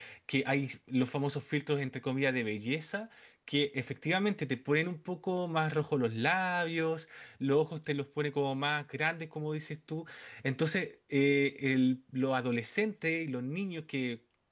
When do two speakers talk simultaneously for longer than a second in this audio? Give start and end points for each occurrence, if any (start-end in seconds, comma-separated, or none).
none